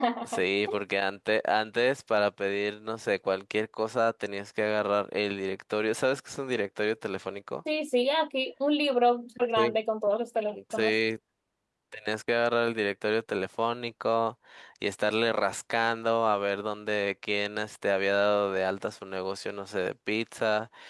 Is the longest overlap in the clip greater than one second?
No

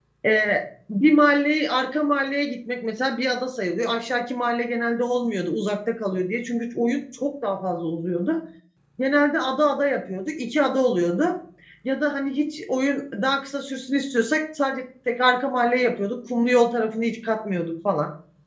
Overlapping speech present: No

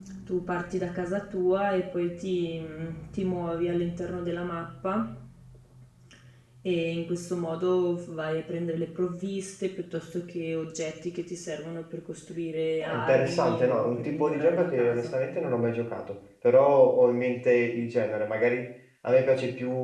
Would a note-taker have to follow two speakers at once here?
Yes, from 12.8 s

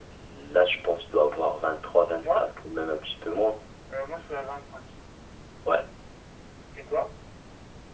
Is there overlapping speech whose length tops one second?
No

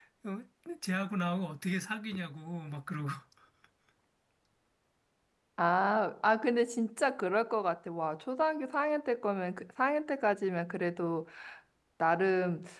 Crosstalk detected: No

